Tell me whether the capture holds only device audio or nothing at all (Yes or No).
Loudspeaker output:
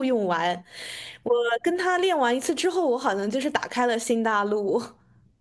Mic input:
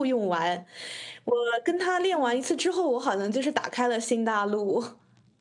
No